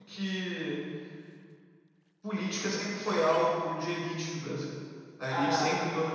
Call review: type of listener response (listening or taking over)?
listening